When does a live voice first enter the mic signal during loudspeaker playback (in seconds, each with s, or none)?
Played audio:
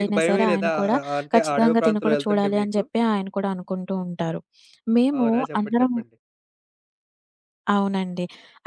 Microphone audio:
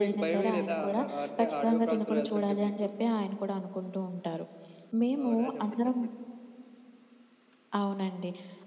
none